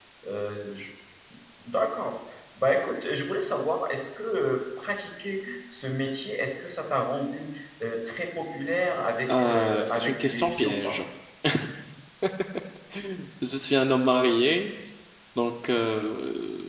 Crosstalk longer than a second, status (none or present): present